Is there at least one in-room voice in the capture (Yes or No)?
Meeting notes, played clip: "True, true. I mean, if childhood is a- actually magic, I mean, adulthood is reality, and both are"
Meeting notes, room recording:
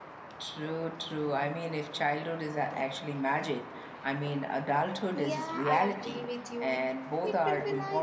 Yes